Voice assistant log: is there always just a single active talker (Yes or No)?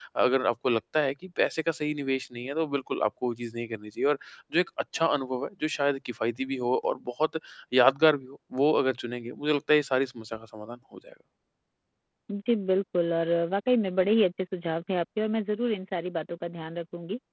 Yes